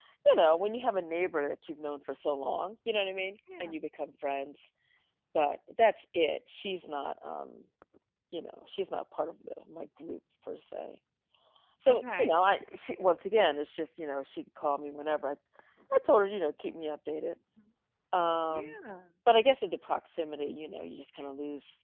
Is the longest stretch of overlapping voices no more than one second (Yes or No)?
Yes